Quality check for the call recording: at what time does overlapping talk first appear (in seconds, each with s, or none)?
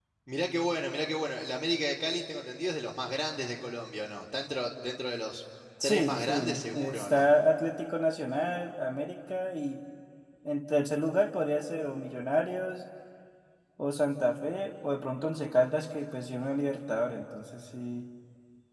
5.8 s